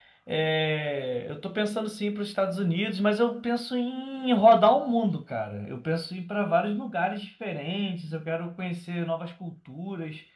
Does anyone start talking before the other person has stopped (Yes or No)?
No